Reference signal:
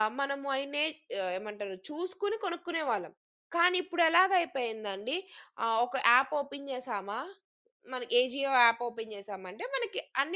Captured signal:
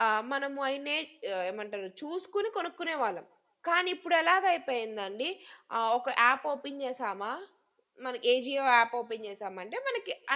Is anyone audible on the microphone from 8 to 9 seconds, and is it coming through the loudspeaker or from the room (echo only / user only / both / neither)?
echo only